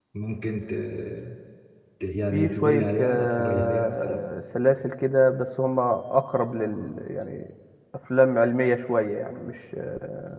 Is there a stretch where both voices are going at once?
Yes, from 2.3 s

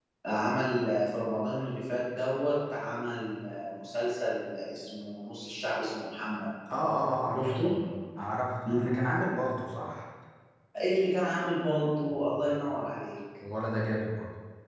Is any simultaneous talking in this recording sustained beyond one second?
No

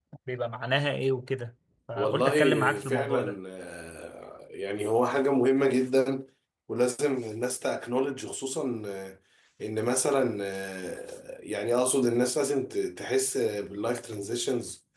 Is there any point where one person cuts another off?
Yes, from 2.0 s

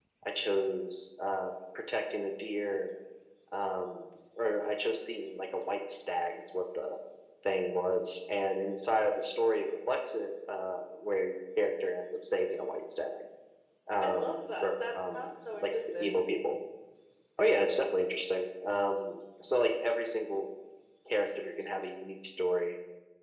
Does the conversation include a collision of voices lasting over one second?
Yes, from 14.0 s

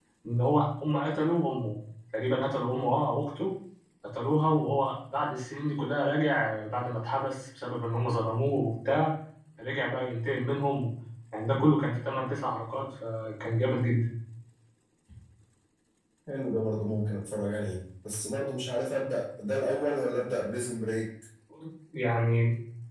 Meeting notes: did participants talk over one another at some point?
No

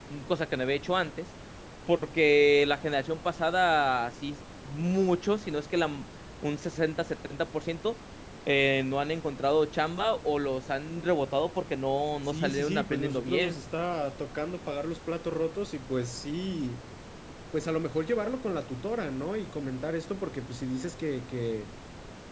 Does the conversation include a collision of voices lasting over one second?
Yes, from 12.2 s

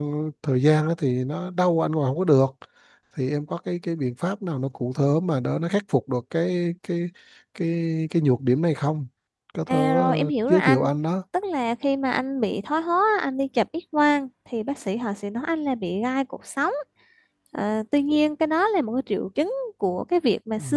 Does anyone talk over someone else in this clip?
Yes, from 9.7 s

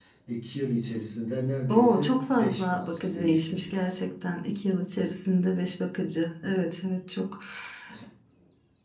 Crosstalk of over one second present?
Yes, from 1.7 s

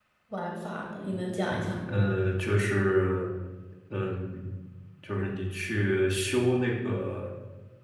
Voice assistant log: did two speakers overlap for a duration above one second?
No

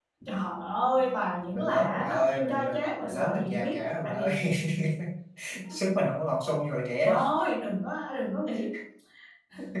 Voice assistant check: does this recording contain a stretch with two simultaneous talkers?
Yes, from 1.6 s

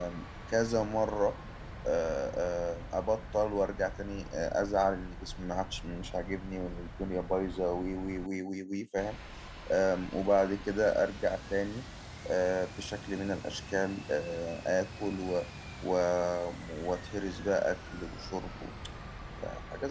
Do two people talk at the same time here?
No

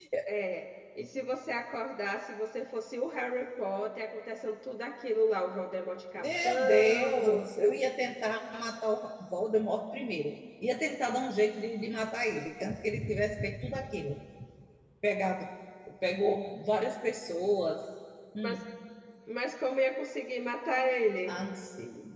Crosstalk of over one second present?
Yes, from 6.2 s

